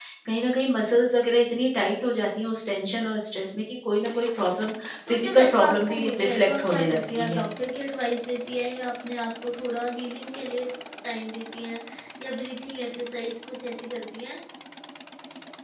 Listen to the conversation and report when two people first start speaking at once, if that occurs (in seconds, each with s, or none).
5.1 s